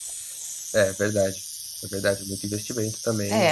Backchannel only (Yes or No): No